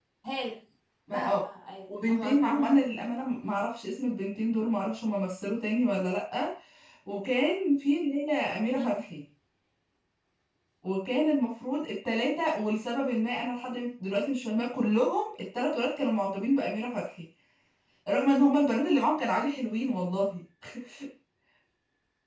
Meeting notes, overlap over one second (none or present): present